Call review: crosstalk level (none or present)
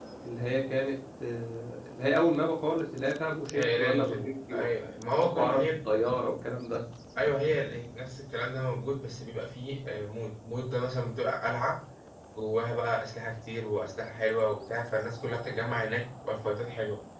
present